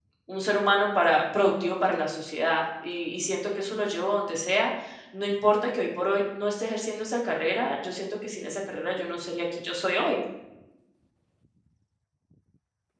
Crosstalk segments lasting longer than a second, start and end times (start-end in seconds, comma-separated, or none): none